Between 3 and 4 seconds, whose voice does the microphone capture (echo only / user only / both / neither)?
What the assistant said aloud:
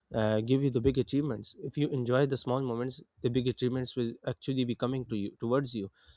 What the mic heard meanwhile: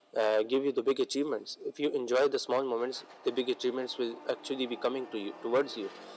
echo only